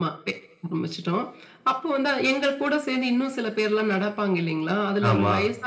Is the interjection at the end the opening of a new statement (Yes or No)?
No